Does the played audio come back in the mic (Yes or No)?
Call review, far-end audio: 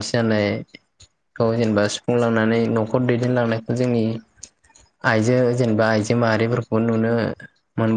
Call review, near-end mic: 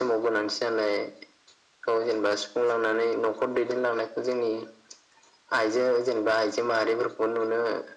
Yes